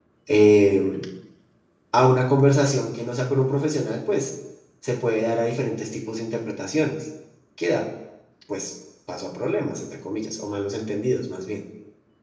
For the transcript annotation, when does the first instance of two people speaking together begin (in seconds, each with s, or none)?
none